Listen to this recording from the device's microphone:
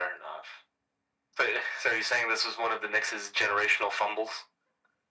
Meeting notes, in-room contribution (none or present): none